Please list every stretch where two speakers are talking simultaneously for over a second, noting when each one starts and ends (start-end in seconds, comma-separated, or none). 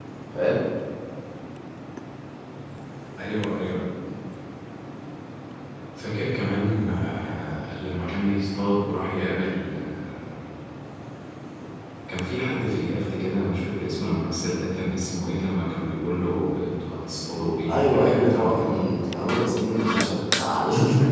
17.7-18.9